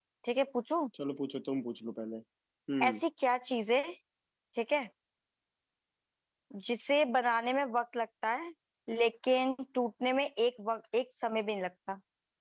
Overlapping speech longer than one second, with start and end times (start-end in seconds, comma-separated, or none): none